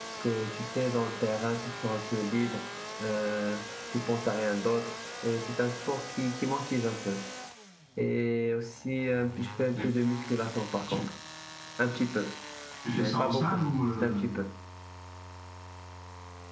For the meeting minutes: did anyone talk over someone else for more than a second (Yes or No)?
Yes